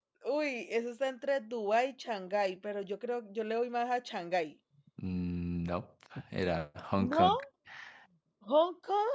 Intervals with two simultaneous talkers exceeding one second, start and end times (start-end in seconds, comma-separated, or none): none